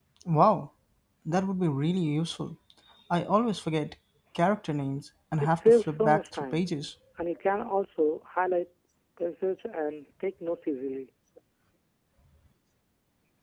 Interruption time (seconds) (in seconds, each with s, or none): 5.4 s